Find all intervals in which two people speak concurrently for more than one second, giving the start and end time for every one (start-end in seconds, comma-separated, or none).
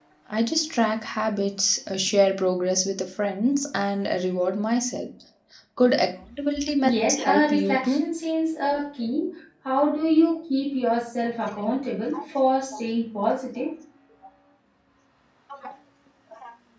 6.8-8.1